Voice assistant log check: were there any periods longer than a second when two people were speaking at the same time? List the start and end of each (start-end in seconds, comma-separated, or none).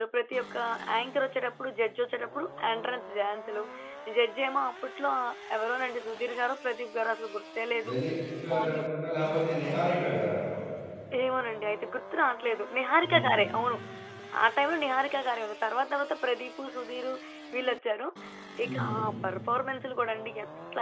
none